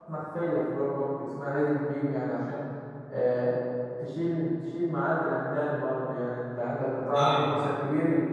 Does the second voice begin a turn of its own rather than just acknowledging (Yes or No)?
No